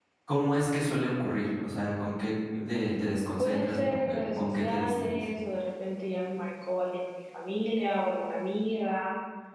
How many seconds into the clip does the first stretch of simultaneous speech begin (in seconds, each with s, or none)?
3.4 s